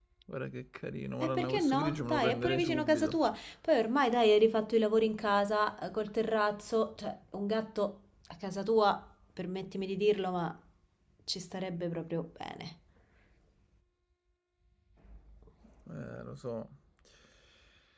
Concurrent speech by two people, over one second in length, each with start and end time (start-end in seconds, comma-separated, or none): 1.2-3.2